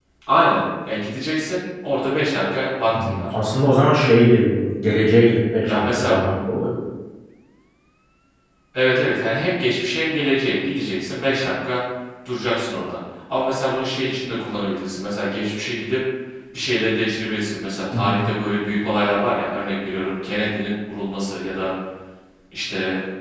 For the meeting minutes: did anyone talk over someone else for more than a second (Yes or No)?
No